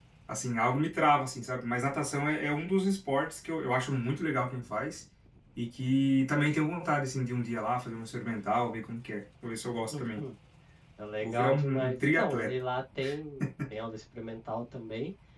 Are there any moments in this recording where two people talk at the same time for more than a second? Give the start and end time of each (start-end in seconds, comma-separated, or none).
11.2-12.5